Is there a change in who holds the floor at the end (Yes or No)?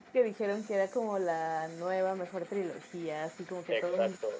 Yes